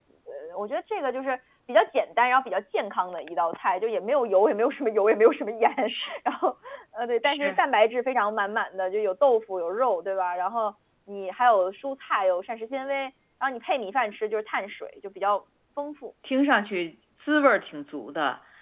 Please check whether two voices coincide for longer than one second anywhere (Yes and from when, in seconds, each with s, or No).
No